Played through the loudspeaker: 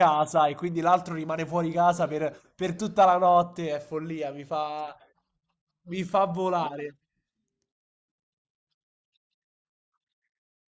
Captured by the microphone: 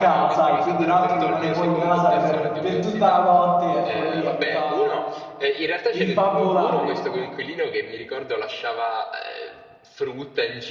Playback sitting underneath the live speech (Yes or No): No